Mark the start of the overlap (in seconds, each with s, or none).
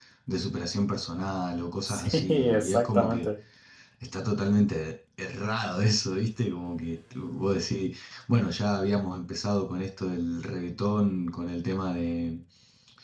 1.9 s